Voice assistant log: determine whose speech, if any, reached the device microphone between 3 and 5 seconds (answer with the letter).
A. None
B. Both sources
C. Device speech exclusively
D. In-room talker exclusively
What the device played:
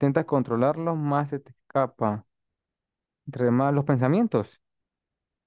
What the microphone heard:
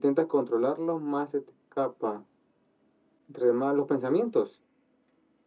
C